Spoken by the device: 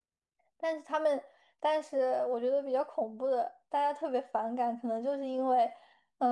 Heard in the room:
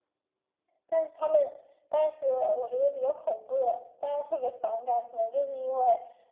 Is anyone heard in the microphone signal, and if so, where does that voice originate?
echo only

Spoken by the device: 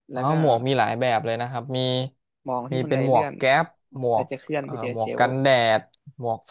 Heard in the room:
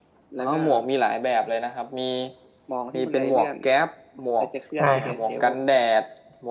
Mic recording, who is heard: both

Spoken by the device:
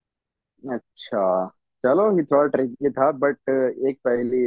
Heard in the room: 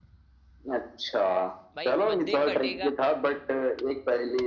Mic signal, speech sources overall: both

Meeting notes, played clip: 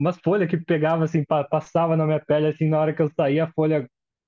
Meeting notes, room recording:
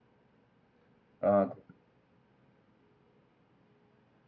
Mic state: user only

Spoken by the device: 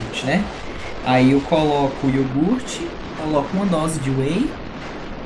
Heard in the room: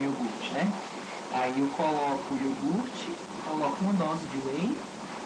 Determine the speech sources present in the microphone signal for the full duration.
echo only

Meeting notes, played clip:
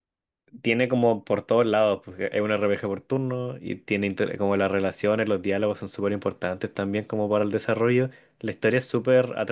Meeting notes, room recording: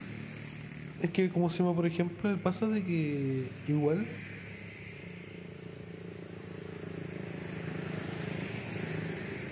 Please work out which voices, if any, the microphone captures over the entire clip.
user only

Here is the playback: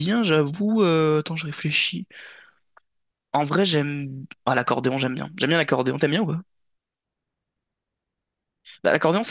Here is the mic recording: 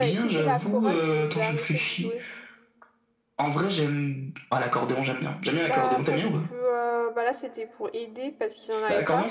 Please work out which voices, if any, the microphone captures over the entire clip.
both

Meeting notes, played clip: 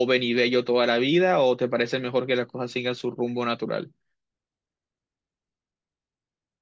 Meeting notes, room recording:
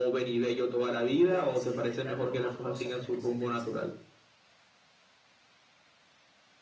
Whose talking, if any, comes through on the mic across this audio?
both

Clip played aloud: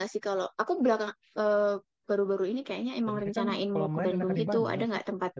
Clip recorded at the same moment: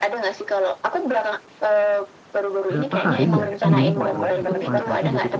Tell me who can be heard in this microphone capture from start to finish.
both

